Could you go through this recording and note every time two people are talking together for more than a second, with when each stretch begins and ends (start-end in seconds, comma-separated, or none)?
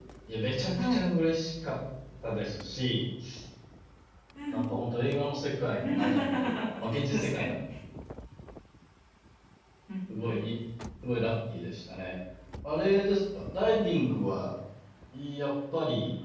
5.8-7.6